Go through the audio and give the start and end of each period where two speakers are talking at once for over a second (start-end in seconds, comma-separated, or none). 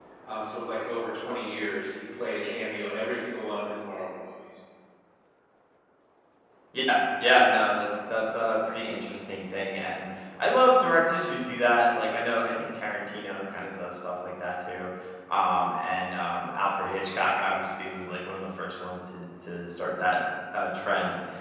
none